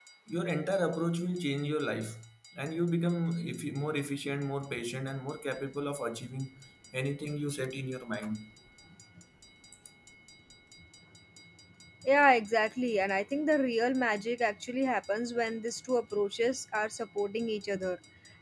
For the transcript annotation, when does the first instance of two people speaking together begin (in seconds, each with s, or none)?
none